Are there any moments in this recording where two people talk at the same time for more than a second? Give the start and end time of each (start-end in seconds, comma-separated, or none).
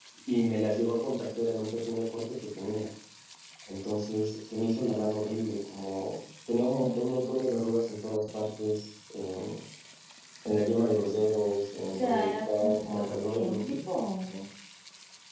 11.9-13.8